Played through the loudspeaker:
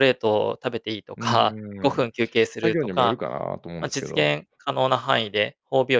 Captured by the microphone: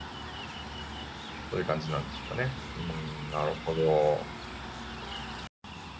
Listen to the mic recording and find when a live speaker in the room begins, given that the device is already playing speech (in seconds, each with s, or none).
1.5 s